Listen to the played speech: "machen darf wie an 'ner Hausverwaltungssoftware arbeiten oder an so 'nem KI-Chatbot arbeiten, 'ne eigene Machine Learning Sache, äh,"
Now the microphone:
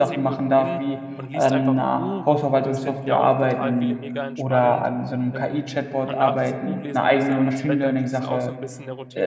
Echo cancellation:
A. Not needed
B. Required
B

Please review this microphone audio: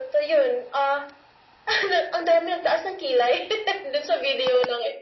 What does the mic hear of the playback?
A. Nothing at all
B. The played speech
B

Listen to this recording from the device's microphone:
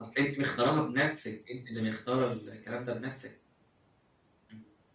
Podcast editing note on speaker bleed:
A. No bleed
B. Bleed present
A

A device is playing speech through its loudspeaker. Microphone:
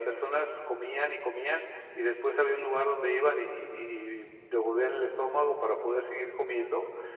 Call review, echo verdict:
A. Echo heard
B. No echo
A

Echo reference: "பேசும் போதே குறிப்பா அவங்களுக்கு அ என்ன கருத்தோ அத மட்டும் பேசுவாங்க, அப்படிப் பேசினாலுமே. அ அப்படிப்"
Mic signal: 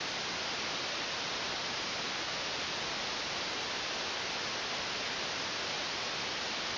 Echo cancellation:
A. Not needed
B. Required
A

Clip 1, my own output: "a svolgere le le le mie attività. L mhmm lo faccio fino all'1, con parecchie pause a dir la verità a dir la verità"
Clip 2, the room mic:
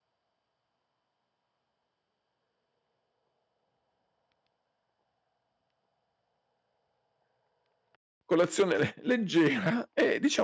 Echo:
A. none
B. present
A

